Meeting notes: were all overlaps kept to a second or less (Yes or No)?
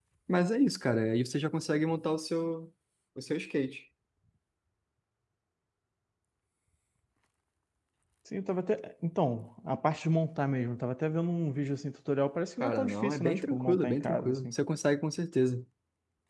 No